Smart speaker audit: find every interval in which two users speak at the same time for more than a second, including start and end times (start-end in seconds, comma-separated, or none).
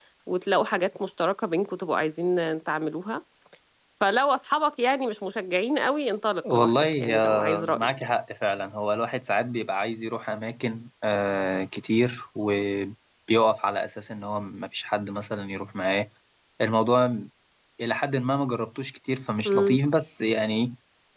6.5-8.1